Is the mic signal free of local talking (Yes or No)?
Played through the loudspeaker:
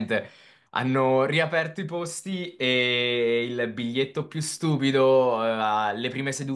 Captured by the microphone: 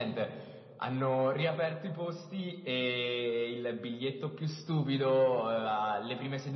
Yes